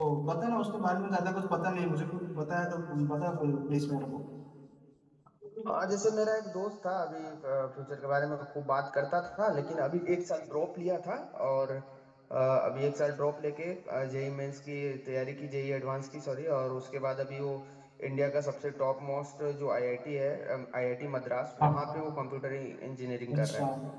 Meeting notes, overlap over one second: none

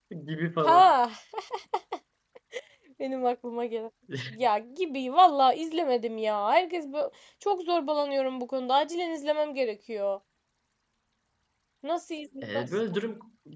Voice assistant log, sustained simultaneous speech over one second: none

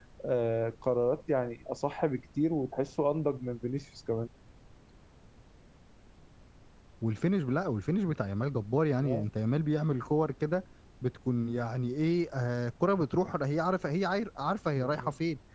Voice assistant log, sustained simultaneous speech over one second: none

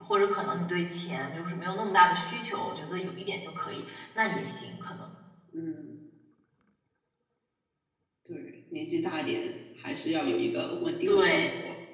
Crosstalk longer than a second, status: none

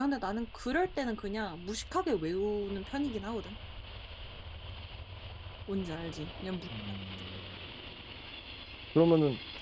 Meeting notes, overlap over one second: none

